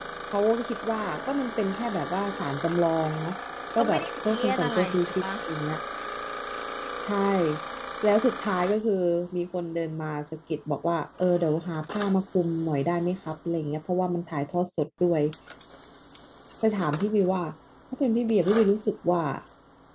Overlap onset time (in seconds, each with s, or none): 3.8 s